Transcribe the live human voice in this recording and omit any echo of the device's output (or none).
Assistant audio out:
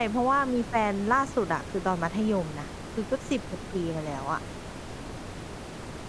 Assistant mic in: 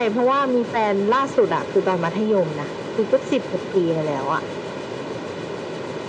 none